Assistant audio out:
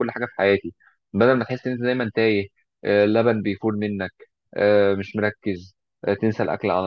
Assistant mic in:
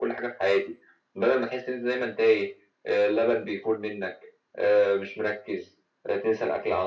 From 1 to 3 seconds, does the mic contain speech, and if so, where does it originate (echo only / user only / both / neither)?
echo only